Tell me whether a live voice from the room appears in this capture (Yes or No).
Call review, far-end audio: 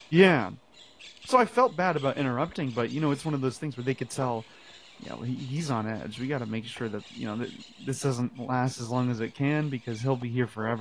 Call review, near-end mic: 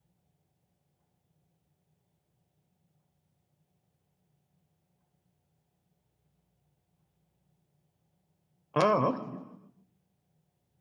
Yes